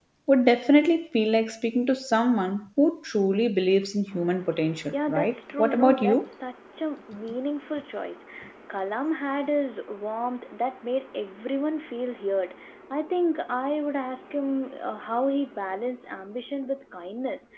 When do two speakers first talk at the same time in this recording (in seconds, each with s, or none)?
4.9 s